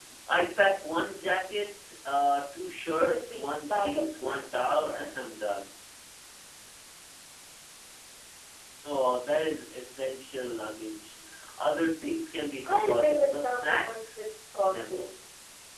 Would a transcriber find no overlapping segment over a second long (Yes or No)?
No